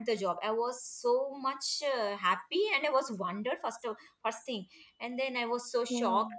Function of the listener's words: listening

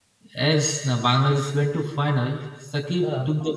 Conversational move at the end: listening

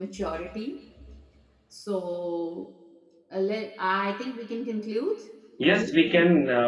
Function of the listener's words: taking over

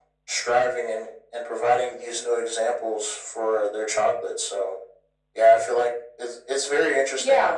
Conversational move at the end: taking over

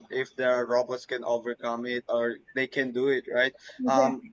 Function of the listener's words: listening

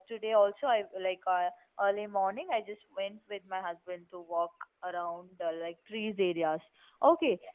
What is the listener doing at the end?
listening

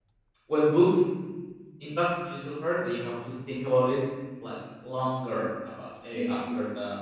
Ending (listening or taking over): listening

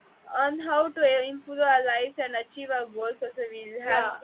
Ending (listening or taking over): taking over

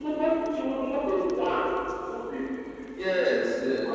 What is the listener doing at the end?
taking over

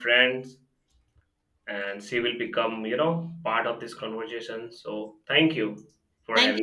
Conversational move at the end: taking over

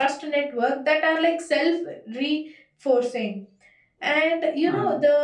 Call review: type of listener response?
listening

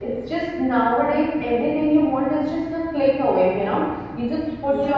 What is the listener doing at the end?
listening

